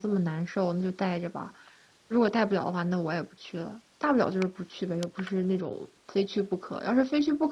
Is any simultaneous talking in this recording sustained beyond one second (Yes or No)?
No